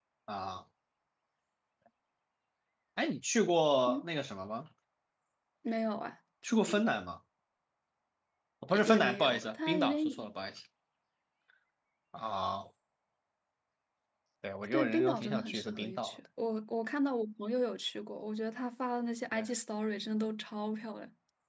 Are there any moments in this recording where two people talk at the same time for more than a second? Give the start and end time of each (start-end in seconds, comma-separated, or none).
8.7-10.3, 14.7-16.2